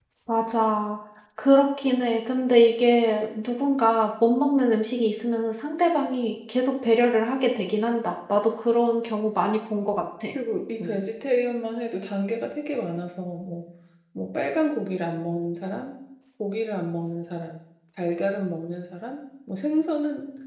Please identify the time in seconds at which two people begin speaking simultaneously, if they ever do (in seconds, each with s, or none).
none